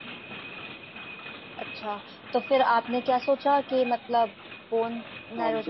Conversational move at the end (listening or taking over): taking over